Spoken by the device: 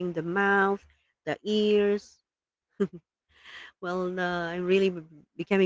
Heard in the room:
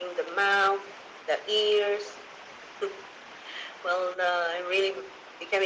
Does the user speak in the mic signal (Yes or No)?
No